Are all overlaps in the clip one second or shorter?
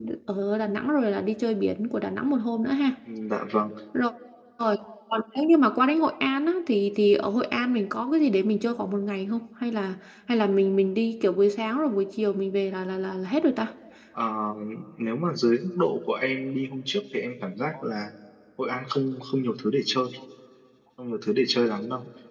Yes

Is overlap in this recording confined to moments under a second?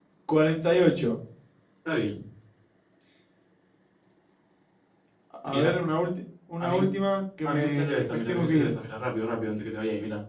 No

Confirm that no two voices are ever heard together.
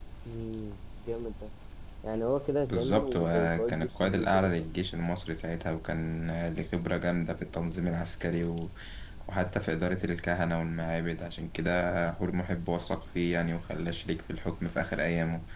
No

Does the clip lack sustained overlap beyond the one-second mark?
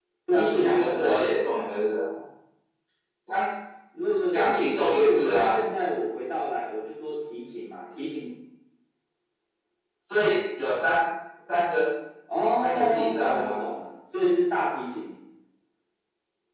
No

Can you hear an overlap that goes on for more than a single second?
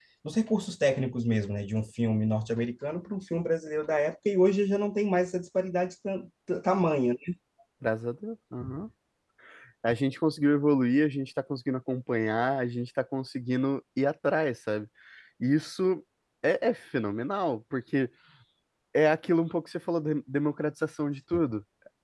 No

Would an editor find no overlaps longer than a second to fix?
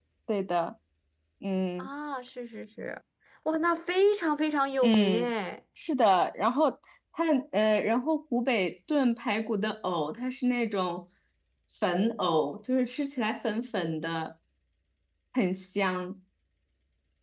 Yes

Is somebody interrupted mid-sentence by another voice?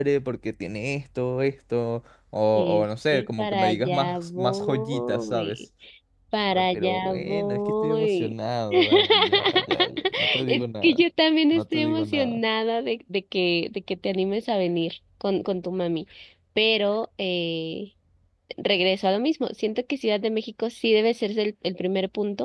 Yes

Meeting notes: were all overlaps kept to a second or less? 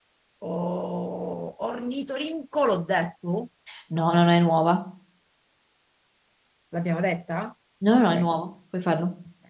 Yes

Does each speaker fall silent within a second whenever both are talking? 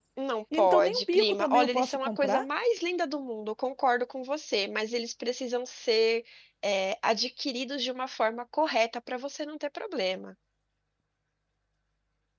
No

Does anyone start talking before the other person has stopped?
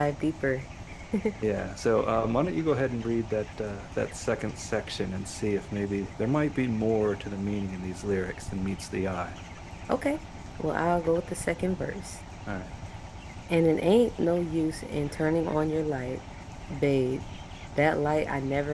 No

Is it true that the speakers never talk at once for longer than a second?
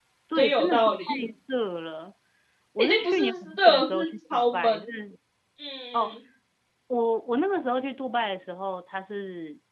No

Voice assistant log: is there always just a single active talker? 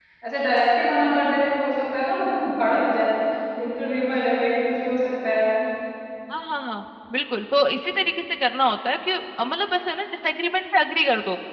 Yes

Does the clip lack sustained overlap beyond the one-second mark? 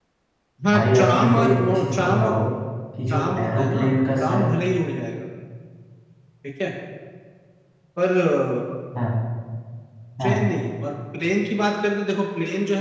No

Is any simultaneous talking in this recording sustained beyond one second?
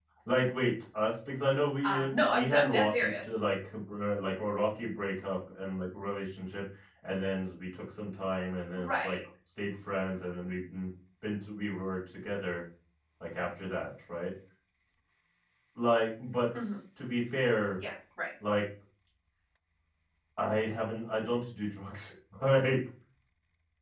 Yes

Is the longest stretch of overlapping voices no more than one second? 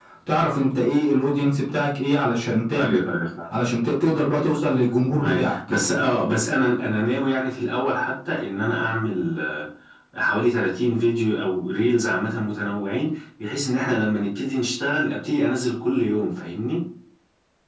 Yes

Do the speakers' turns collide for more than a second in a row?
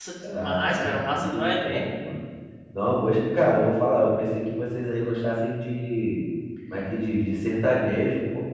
Yes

